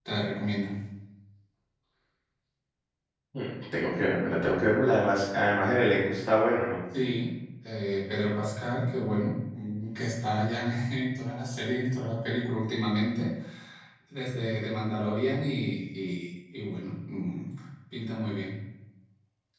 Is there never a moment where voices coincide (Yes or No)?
Yes